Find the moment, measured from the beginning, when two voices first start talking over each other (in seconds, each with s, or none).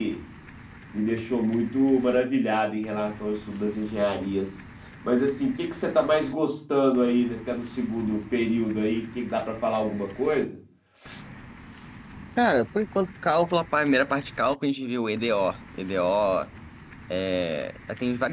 none